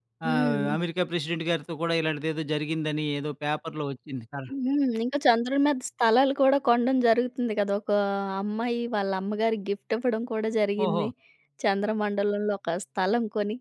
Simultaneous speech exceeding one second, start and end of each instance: none

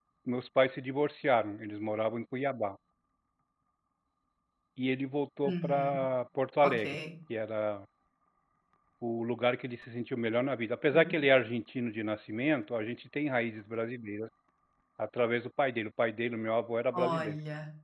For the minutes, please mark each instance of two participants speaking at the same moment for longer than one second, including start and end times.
none

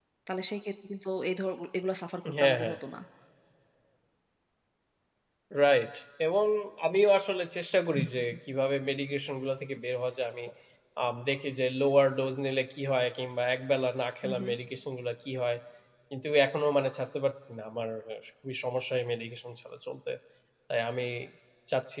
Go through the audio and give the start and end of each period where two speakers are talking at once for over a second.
none

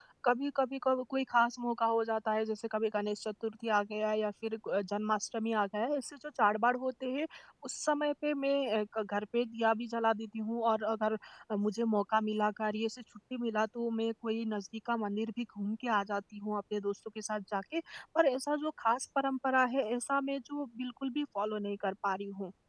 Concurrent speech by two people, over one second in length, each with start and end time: none

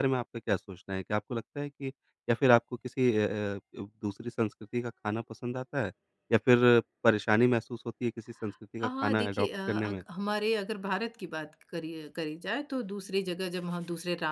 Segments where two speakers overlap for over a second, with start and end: 8.8-10.0

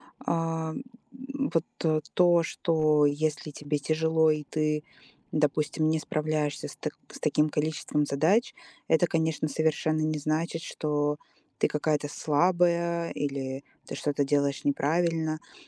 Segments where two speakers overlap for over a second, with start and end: none

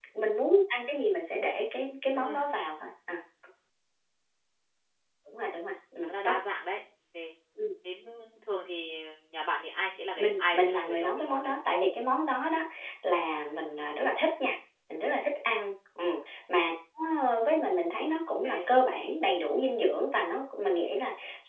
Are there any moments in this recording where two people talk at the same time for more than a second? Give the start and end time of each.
10.2-11.6

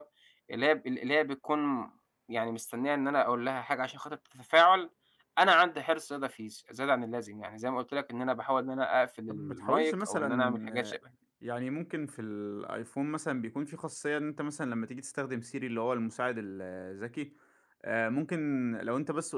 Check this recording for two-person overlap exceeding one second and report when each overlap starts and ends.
9.3-11.0

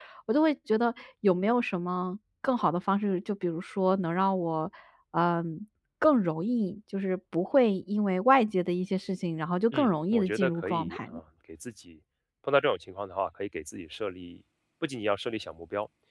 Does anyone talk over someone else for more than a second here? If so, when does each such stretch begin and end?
9.7-11.0

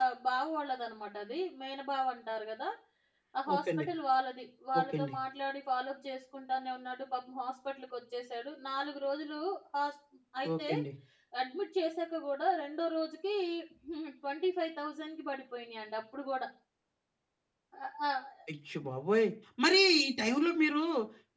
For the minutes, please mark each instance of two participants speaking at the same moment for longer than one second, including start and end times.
none

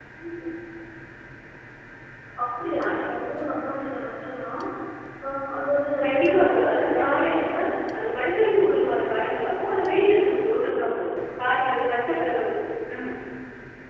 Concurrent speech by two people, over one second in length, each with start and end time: 6.0-7.6

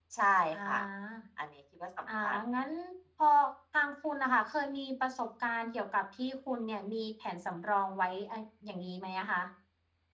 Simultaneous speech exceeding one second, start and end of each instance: none

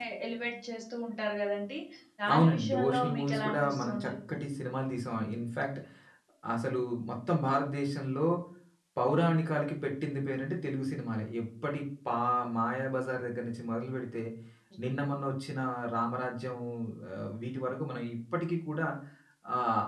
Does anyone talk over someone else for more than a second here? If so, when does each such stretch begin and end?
2.3-4.4

